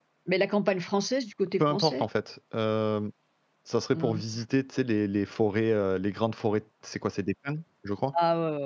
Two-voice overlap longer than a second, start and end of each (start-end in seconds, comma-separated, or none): none